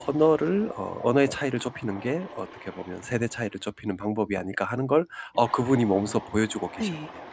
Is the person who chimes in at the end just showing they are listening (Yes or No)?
No